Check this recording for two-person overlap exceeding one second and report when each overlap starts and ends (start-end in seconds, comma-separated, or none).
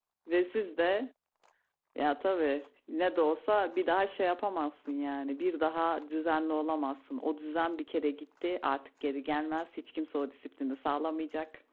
none